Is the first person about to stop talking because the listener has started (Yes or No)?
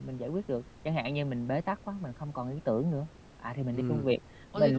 Yes